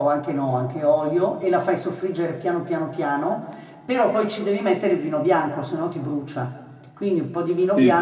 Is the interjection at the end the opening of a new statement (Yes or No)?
No